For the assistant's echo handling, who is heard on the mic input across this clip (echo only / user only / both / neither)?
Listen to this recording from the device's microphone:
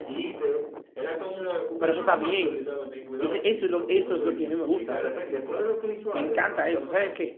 both